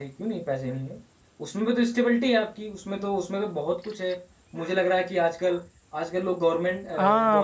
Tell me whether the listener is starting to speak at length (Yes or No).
Yes